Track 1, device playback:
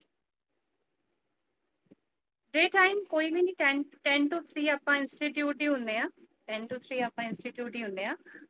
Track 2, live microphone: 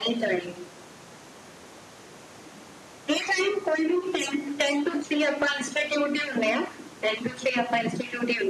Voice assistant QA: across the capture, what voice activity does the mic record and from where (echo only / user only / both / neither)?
echo only